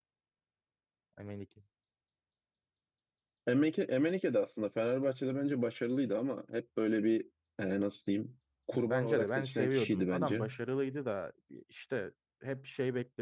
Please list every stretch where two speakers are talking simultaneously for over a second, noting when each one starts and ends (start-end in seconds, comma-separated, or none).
8.7-10.4